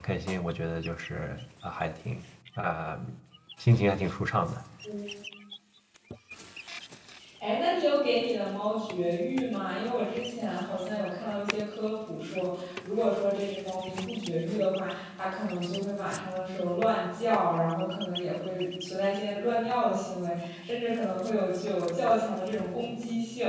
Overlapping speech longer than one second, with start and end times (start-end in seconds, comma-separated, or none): none